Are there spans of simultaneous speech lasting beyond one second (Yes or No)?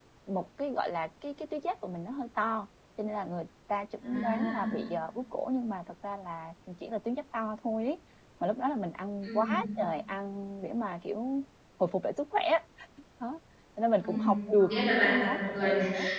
Yes